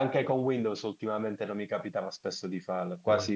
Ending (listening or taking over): listening